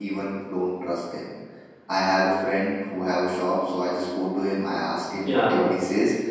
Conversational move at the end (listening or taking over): listening